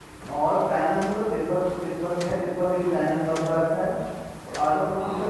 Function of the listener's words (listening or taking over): listening